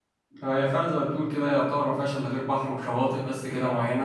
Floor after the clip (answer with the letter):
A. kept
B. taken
B